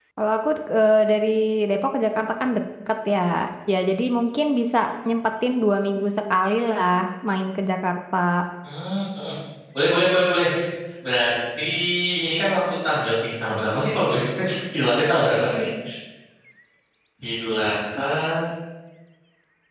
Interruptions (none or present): none